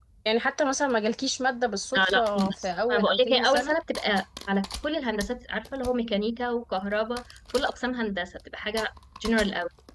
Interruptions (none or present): present